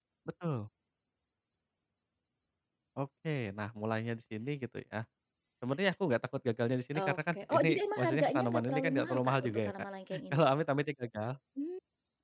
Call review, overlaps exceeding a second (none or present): present